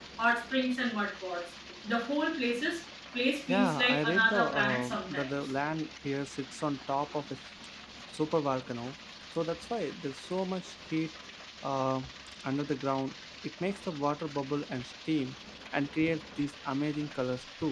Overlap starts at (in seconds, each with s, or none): 3.5 s